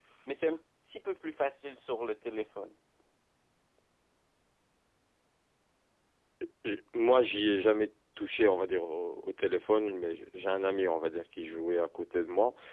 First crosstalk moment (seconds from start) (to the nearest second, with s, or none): none